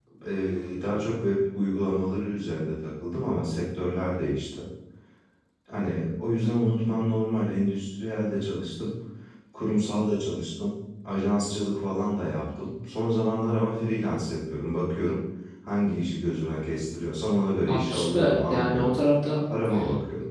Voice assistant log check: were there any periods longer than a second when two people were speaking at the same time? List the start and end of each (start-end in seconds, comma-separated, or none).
17.7-19.0